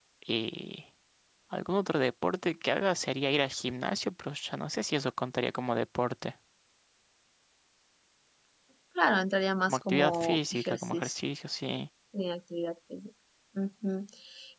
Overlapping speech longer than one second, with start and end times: 9.7-11.2

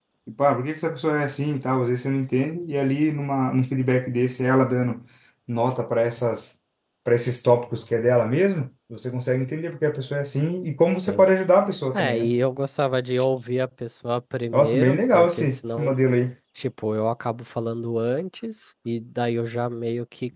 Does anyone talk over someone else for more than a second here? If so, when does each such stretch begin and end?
14.5-15.9

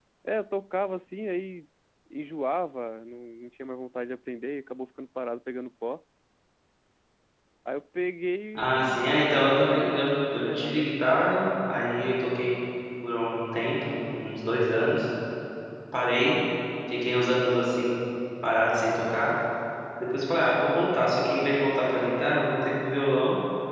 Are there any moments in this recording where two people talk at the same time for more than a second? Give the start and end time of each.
8.6-10.8

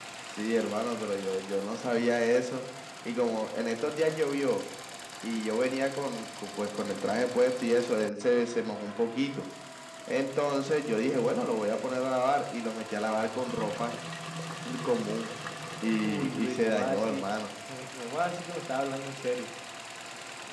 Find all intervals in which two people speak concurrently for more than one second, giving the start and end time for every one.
16.0-17.3

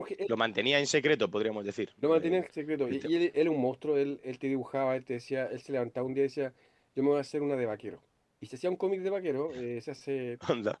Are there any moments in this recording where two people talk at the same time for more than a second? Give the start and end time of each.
none

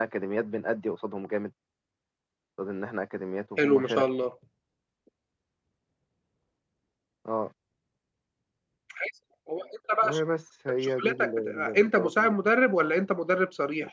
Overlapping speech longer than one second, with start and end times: 10.8-12.3

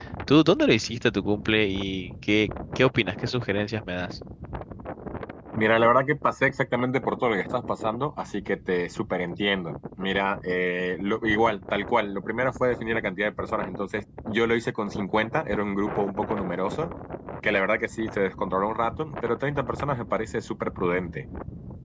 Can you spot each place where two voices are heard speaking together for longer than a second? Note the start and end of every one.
none

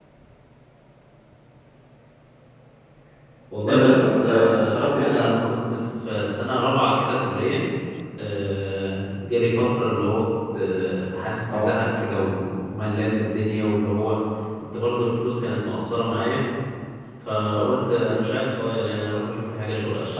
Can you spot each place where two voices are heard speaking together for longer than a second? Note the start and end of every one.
3.7-5.2

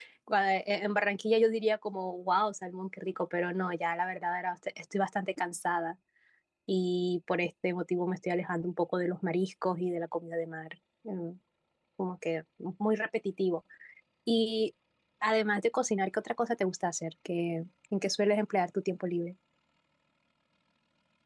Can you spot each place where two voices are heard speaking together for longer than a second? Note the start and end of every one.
none

